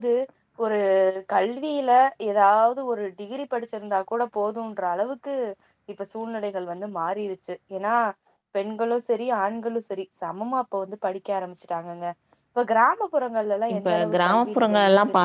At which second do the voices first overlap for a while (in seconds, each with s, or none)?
13.7 s